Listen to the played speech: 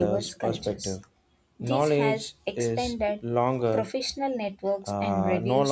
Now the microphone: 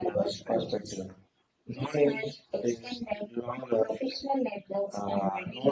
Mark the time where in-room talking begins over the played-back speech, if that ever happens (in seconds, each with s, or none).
none